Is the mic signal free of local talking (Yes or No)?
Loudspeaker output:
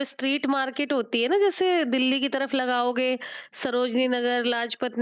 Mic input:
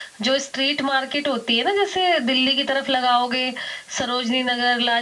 Yes